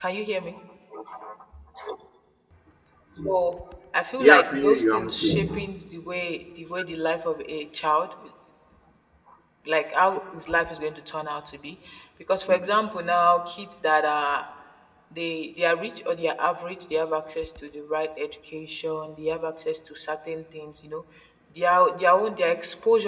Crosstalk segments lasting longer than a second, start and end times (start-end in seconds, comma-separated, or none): 4.2-5.7